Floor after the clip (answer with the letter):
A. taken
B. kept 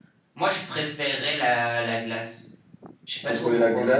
A